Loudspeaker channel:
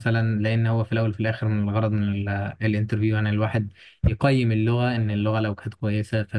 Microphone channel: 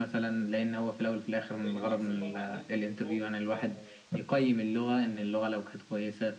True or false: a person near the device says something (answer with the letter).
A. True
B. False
A